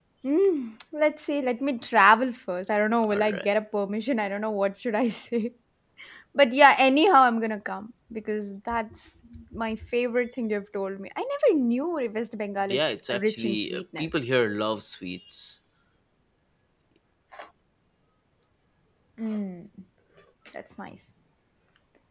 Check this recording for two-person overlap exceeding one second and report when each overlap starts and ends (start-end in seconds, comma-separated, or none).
12.7-14.1